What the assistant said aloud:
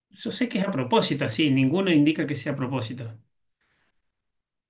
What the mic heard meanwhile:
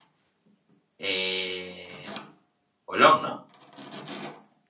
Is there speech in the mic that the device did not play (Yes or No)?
Yes